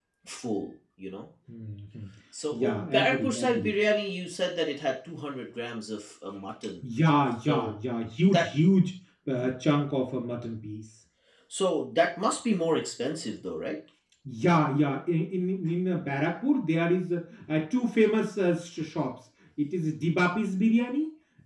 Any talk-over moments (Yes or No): Yes